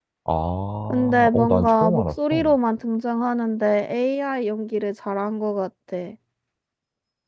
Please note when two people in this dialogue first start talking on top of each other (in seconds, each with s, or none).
0.9 s